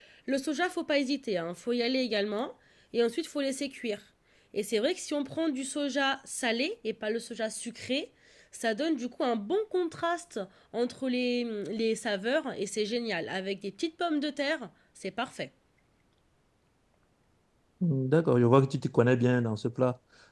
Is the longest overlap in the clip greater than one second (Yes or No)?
No